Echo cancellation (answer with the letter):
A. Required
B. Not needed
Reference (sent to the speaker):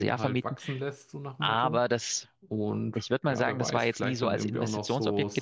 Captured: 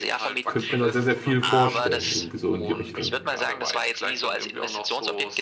A